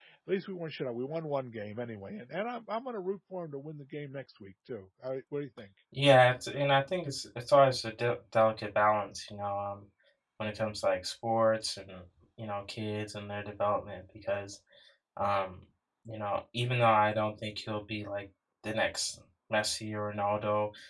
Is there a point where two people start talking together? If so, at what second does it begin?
none

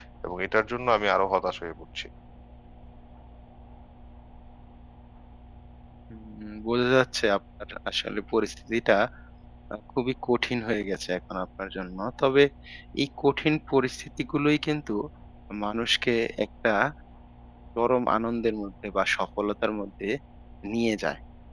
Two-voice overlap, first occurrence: none

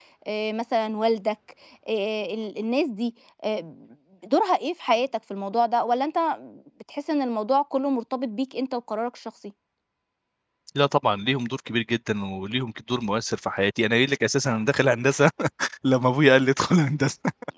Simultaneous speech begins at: none

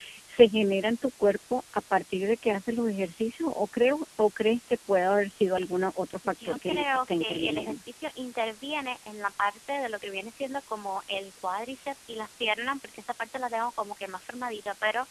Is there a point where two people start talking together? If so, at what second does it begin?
6.2 s

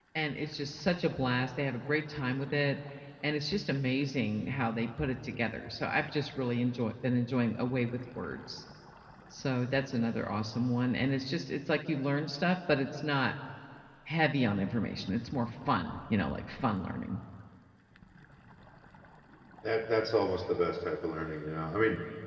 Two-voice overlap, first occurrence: none

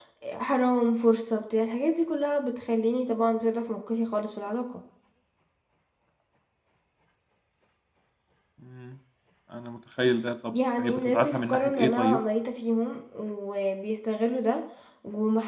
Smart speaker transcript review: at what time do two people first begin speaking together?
10.5 s

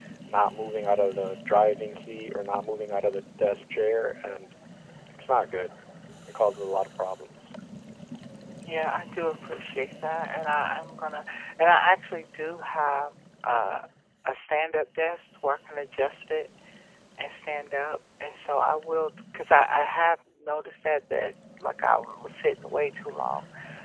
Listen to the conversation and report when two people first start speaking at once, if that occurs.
none

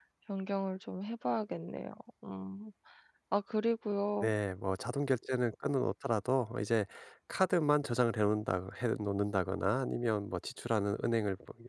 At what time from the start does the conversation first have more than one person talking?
none

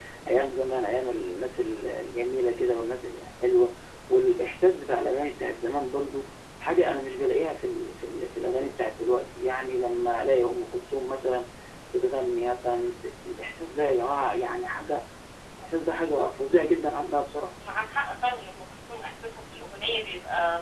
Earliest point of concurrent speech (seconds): none

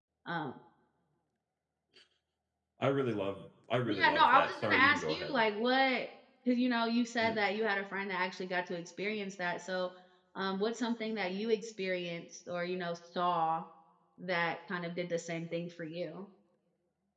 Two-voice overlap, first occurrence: 3.9 s

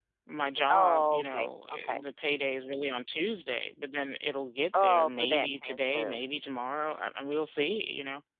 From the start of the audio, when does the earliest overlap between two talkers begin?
0.7 s

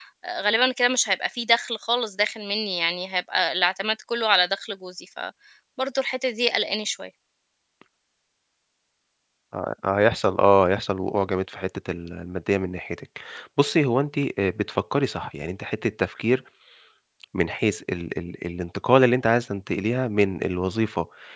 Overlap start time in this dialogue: none

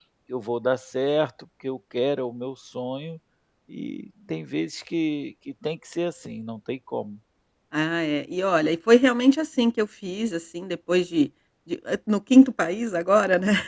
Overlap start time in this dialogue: none

